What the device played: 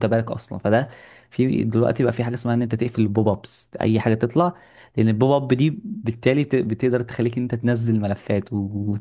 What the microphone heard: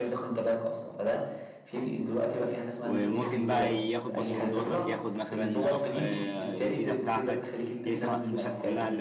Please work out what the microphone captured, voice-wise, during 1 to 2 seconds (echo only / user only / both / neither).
echo only